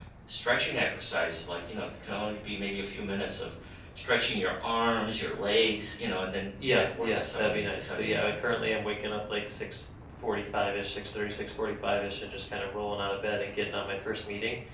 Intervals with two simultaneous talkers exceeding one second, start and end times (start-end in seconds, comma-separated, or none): 6.6-8.3